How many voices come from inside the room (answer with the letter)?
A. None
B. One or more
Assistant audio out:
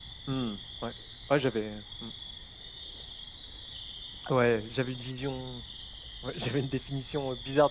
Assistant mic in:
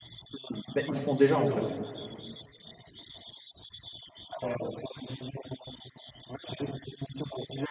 B